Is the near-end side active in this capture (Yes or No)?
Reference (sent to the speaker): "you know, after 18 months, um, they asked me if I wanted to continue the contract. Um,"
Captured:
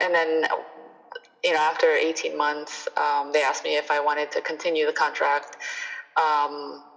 No